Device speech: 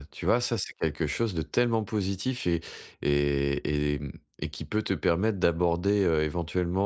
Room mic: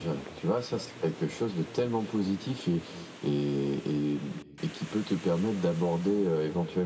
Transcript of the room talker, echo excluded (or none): none